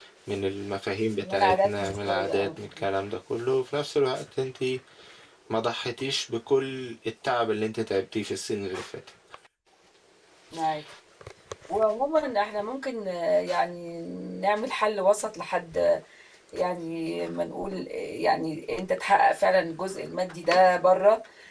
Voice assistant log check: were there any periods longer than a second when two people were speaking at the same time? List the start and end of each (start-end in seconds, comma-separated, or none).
1.2-2.6